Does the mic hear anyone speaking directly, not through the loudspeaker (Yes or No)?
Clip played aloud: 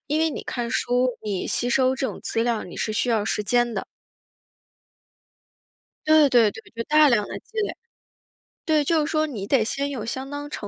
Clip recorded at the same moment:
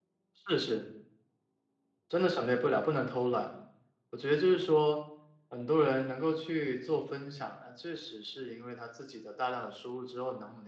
Yes